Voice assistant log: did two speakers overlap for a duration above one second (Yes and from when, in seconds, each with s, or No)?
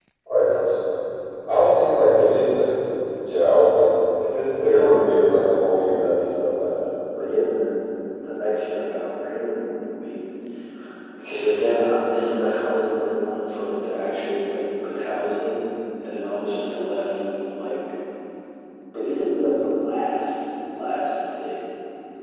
Yes, from 4.6 s